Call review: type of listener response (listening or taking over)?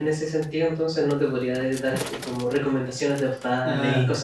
taking over